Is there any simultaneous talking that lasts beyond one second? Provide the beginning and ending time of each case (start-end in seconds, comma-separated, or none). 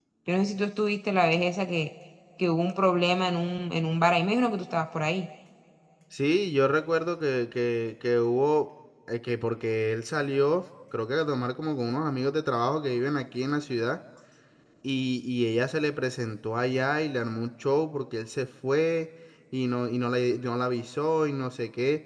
none